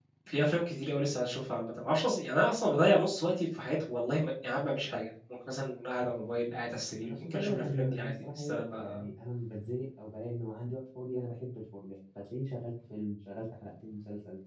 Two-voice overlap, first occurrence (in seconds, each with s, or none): 7.0 s